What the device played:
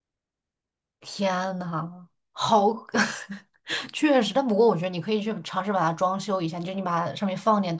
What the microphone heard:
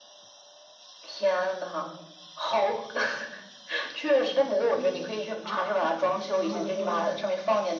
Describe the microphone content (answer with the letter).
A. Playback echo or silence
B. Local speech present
B